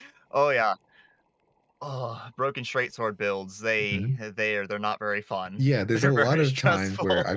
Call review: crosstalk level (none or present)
present